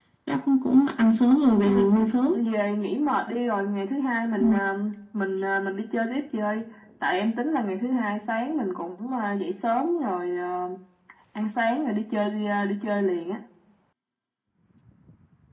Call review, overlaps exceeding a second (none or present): none